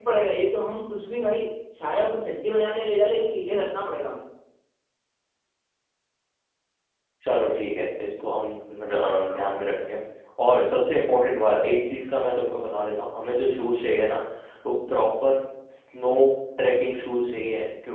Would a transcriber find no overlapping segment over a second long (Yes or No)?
Yes